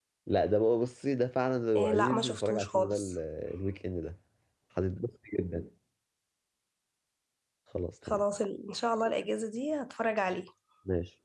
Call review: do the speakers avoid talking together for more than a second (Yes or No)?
No